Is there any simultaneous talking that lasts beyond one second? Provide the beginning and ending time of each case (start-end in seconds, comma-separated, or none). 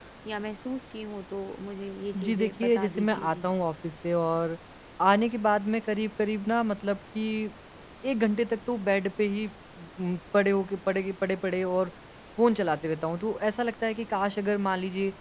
2.2-3.5